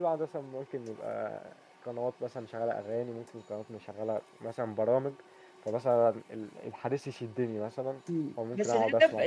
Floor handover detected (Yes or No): Yes